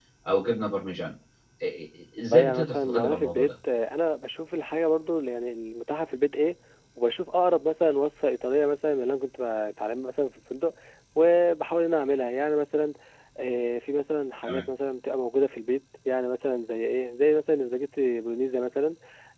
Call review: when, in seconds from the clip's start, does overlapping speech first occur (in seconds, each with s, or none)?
2.3 s